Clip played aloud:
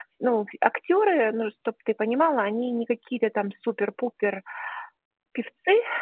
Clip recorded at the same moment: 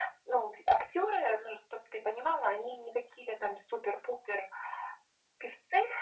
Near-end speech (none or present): none